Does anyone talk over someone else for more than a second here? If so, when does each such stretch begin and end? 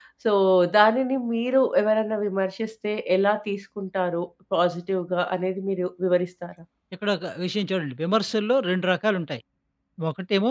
none

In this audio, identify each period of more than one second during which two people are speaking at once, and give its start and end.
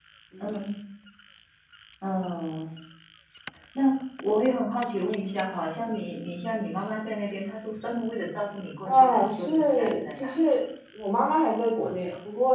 8.8-10.3

